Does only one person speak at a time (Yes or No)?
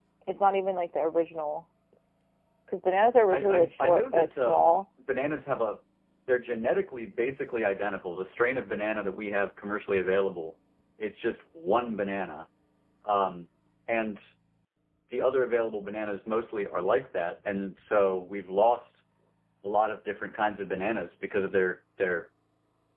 No